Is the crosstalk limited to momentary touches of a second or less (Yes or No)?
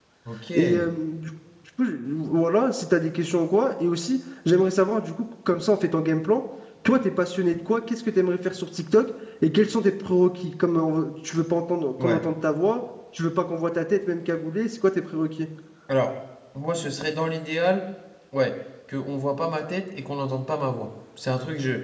Yes